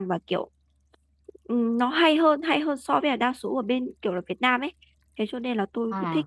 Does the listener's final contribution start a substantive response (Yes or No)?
No